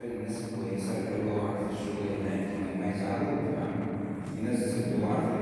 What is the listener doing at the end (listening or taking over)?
listening